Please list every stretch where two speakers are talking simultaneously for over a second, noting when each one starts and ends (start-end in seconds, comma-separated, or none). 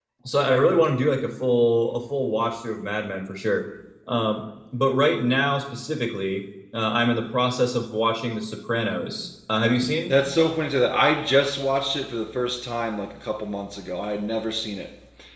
none